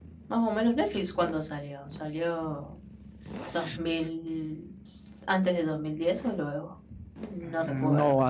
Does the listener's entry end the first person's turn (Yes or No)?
Yes